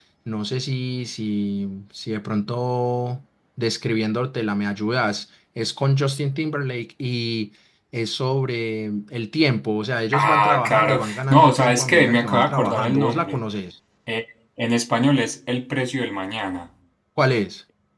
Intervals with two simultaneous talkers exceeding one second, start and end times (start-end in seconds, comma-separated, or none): 10.1-13.4